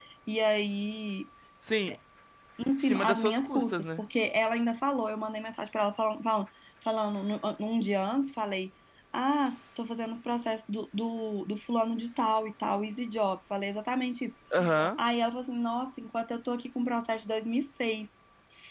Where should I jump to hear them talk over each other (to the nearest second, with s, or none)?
3 s